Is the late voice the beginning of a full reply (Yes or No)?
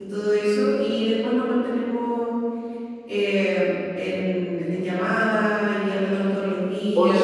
Yes